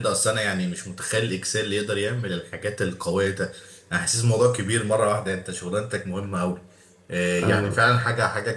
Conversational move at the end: listening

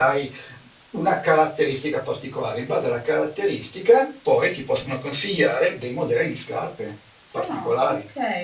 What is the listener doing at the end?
taking over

